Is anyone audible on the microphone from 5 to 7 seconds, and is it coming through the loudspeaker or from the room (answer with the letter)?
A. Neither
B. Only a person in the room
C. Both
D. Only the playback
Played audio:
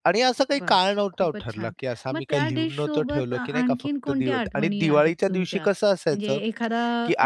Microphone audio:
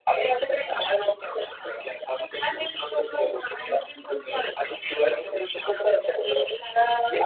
D